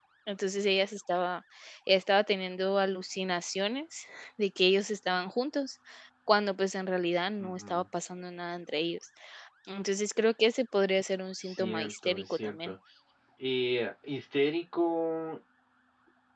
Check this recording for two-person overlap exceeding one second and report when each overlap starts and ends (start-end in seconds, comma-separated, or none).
11.4-12.7